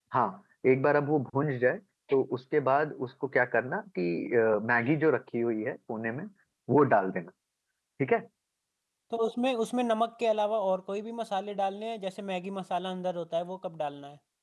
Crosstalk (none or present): none